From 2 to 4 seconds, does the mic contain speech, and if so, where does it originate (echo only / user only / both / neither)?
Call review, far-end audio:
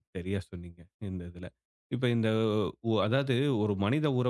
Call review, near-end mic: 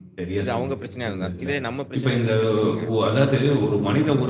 both